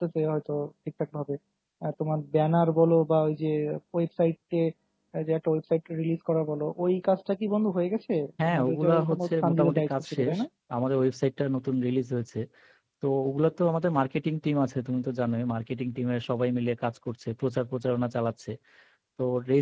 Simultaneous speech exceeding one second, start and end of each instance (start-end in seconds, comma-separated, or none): 8.4-10.4